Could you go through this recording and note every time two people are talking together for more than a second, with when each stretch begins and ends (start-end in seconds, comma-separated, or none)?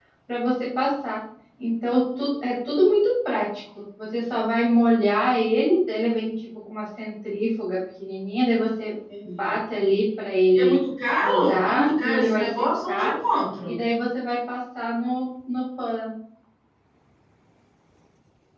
11.2-13.1